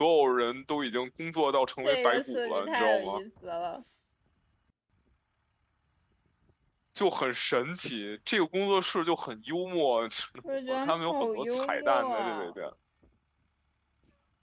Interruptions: present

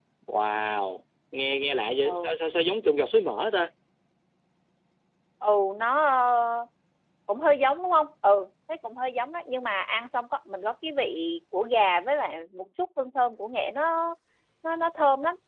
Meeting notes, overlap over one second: none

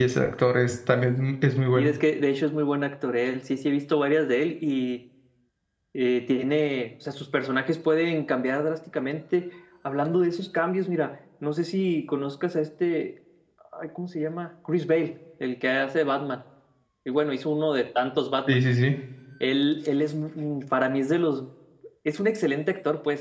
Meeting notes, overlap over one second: none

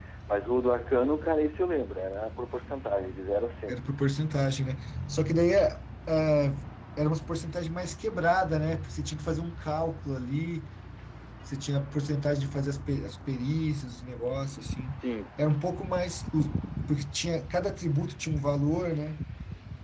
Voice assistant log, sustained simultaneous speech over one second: none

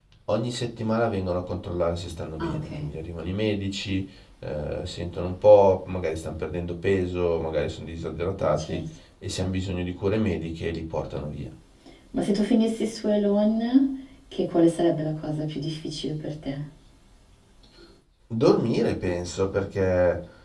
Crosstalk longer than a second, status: none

